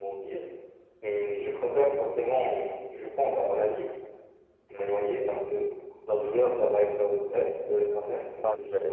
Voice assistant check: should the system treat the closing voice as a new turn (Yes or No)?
Yes